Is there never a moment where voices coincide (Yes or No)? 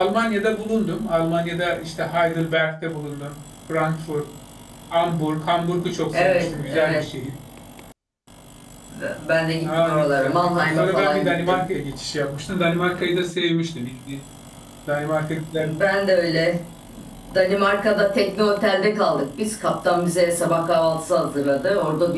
No